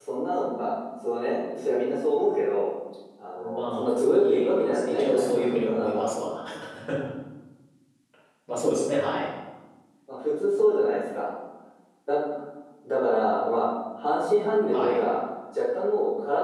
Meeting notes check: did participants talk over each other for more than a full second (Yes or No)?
Yes